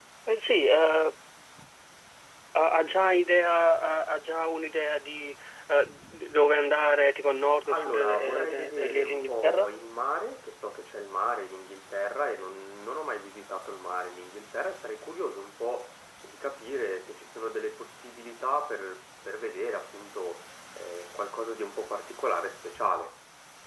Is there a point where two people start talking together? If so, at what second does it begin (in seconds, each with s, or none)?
7.7 s